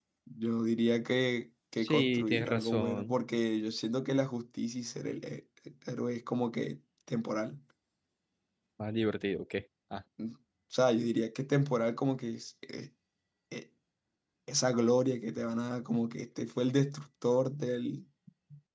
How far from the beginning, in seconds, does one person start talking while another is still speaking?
1.8 s

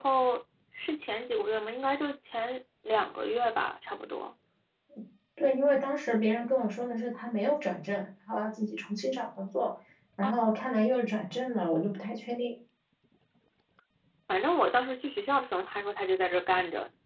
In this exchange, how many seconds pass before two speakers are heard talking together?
none

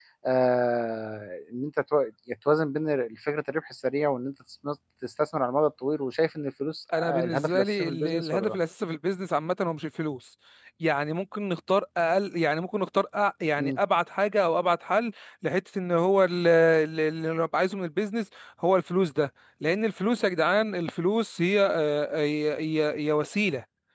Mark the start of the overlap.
6.9 s

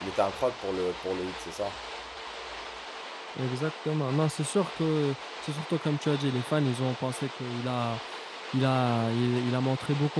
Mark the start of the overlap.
none

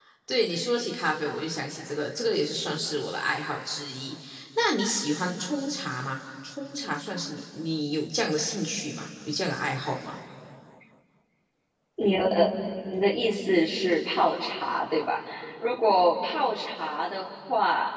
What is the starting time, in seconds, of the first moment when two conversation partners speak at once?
none

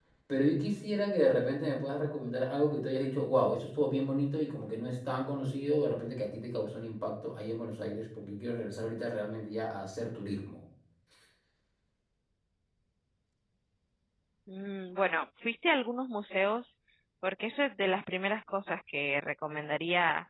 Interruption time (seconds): none

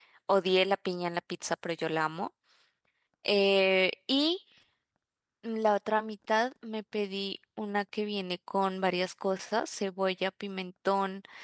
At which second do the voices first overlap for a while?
none

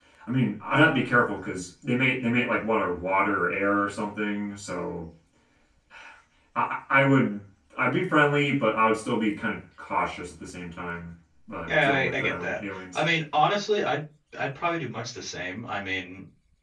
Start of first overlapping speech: 11.7 s

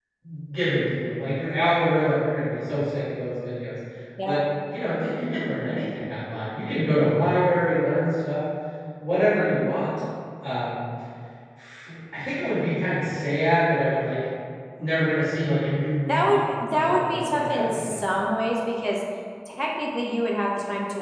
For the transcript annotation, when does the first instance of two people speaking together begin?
16.1 s

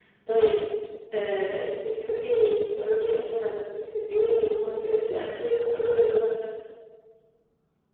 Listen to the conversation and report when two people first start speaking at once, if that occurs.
4.5 s

